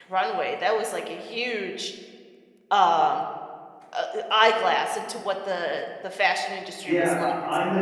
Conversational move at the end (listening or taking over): taking over